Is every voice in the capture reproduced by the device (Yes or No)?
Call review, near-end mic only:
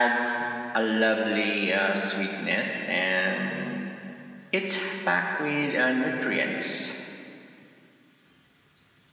Yes